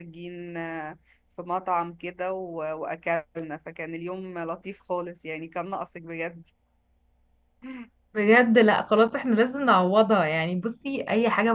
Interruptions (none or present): none